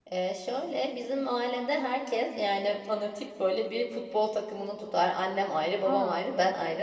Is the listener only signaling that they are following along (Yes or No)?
Yes